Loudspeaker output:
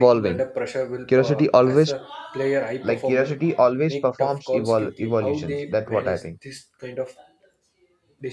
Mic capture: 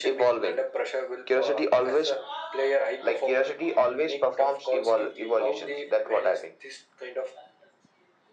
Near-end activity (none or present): none